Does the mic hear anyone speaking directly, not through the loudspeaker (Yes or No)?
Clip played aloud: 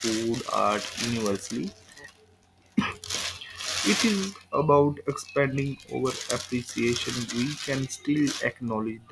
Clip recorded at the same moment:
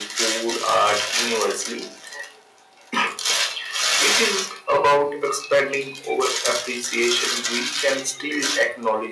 No